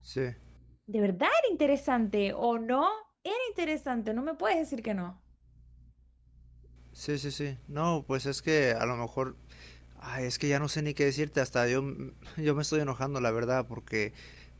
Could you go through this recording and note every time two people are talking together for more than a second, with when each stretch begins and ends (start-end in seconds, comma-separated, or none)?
none